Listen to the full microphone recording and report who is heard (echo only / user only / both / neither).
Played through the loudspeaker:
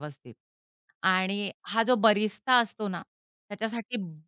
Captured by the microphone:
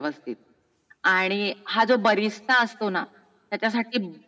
echo only